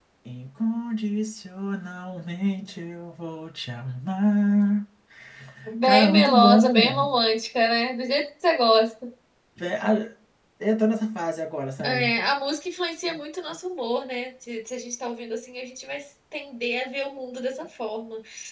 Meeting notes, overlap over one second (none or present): present